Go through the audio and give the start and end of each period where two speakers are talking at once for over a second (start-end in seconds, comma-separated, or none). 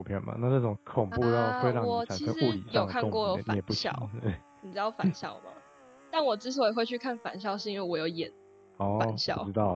1.1-3.9